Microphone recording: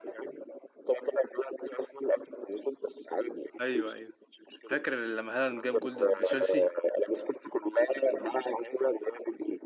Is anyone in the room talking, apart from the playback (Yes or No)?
Yes